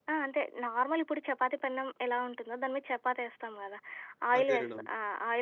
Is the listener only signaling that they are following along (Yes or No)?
Yes